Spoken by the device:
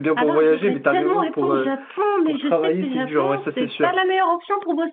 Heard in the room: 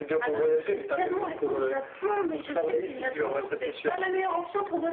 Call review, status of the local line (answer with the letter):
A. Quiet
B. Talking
A